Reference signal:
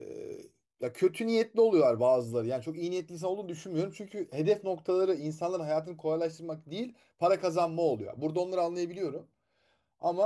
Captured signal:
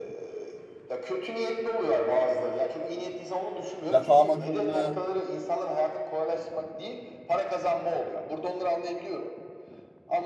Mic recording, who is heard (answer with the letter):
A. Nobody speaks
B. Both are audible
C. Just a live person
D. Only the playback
B